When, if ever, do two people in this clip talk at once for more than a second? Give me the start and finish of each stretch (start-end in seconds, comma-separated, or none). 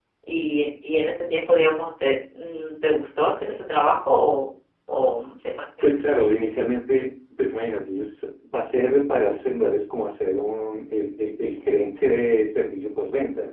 none